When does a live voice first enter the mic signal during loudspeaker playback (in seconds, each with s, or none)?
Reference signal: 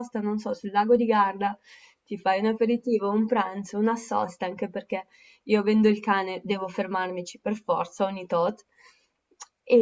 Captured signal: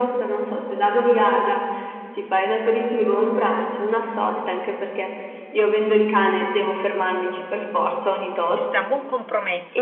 8.5 s